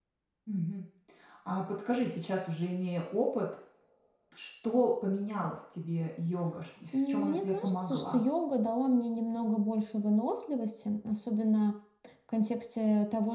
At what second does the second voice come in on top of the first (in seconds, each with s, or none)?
6.9 s